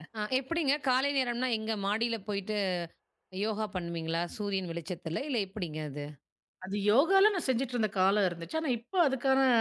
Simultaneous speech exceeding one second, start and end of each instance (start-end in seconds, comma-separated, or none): none